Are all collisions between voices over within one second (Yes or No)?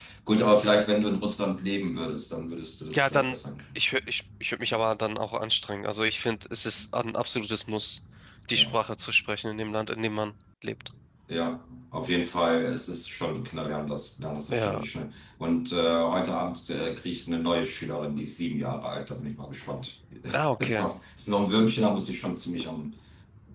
Yes